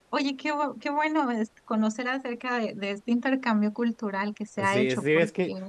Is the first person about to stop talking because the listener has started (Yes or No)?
Yes